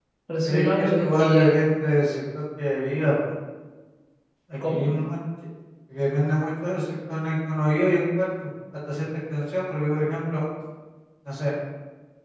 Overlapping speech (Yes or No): Yes